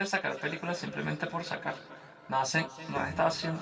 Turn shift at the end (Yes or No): No